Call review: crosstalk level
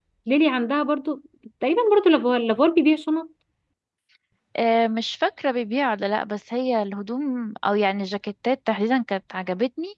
none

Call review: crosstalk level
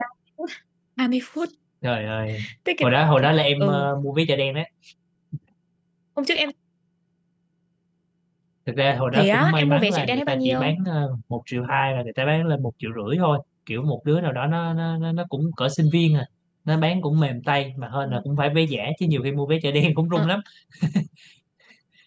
present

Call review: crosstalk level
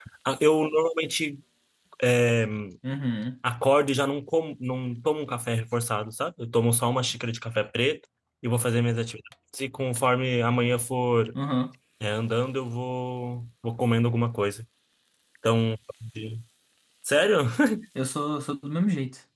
none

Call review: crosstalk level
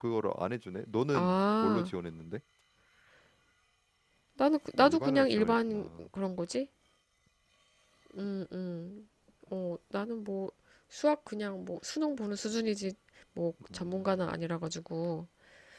present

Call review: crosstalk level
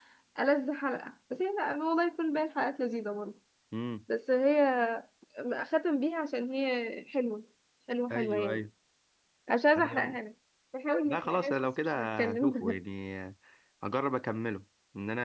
present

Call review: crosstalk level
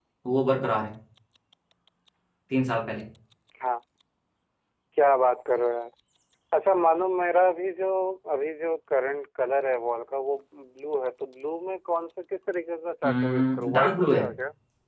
present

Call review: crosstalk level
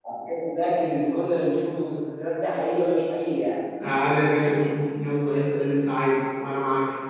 none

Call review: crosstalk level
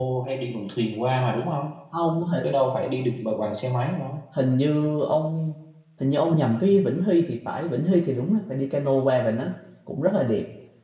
none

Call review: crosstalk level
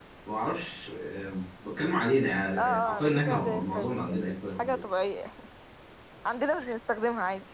present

